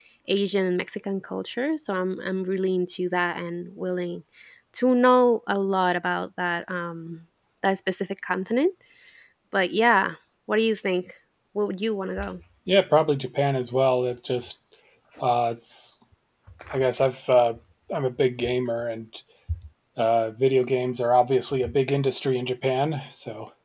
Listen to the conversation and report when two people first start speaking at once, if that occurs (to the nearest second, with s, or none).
none